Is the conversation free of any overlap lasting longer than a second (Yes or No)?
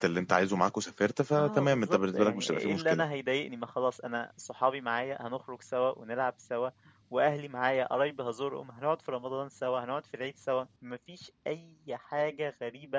No